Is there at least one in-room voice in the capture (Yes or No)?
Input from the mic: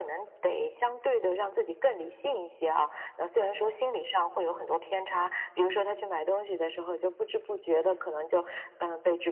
No